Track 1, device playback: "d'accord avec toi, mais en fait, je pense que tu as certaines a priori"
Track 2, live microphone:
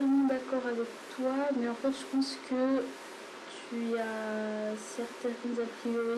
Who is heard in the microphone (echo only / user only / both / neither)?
echo only